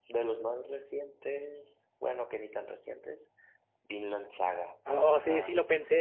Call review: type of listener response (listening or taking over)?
taking over